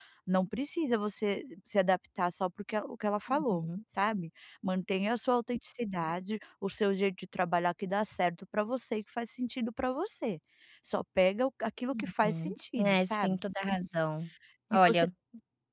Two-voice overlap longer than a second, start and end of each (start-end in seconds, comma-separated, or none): 11.9-13.4